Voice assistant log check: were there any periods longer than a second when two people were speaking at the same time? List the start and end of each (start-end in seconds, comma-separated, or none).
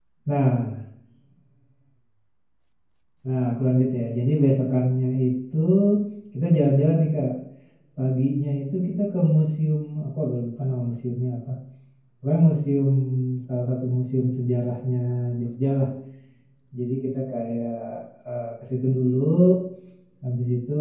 none